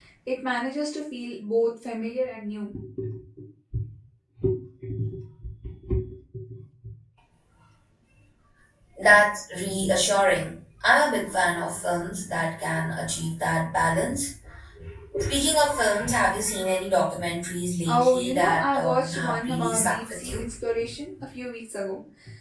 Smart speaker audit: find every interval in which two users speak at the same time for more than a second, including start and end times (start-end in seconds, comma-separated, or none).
17.9-20.4